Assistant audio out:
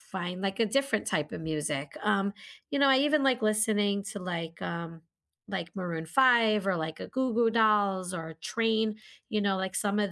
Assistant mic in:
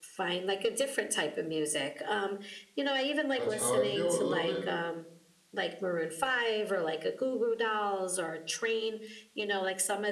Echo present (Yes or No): Yes